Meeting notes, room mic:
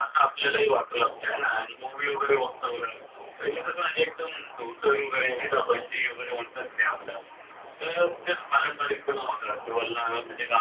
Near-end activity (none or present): none